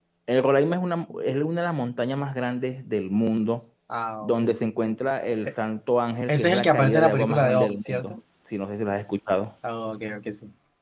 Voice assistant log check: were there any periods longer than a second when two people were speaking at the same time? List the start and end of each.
6.3-8.2

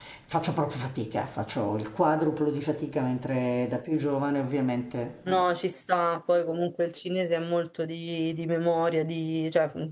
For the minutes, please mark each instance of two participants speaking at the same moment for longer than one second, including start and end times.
none

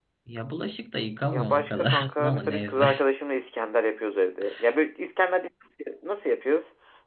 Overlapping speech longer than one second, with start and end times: 1.3-2.9

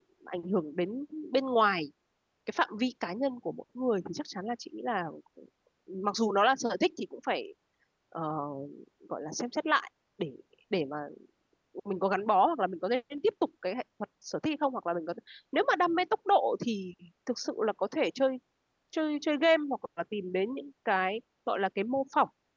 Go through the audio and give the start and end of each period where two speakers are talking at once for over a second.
none

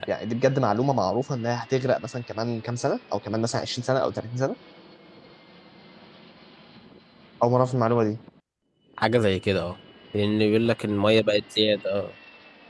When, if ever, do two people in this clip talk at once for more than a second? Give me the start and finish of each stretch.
none

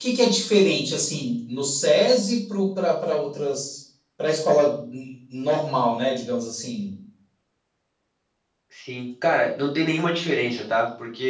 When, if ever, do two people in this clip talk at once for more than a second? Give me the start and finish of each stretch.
none

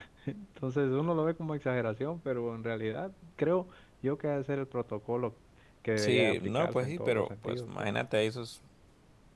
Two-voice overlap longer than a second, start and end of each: 6.0-7.7

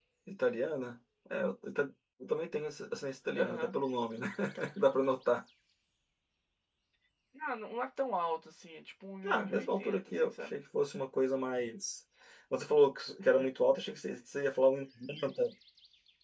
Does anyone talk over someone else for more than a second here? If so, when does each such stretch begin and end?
9.3-10.6

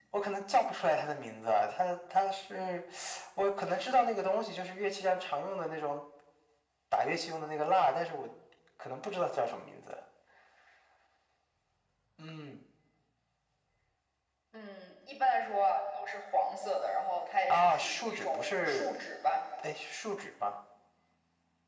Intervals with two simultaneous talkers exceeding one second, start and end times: 17.5-18.9

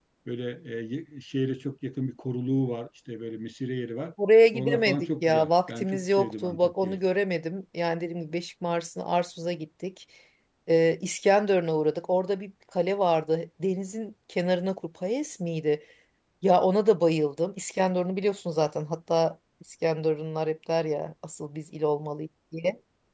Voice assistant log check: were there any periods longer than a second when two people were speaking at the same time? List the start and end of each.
4.5-7.0

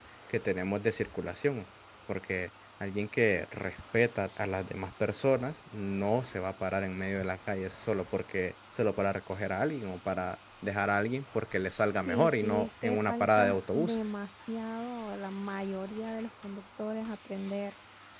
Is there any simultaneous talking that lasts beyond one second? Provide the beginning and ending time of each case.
11.9-14.0

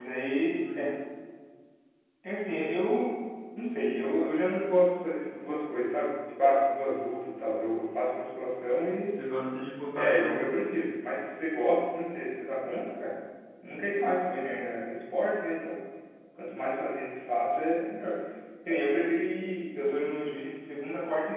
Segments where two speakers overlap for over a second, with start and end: none

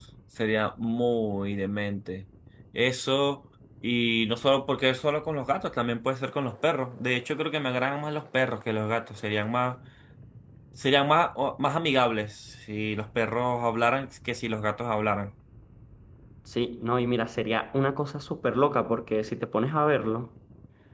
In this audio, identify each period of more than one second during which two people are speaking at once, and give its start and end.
none

